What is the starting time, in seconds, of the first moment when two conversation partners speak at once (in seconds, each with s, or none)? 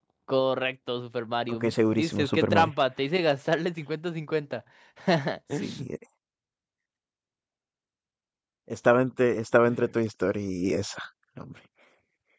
1.5 s